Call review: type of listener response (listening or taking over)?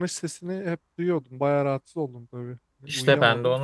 taking over